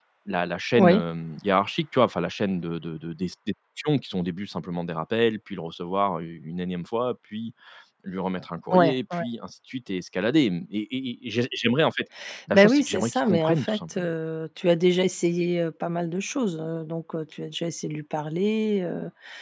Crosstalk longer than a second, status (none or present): present